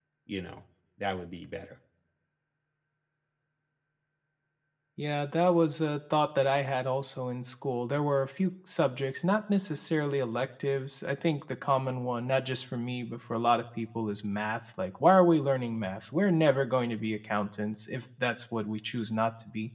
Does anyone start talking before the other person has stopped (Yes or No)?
No